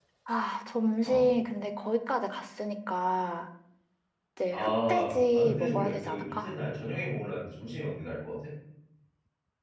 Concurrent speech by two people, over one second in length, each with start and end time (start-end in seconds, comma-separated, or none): 4.5-6.5